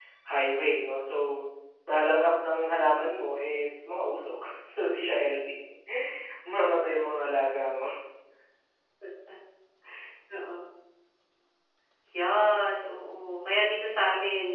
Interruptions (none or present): none